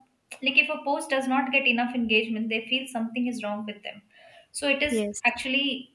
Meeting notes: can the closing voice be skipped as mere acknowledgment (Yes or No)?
Yes